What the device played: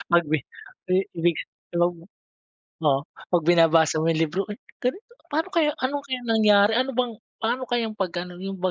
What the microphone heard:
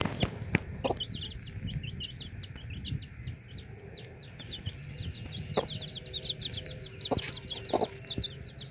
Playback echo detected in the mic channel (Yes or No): No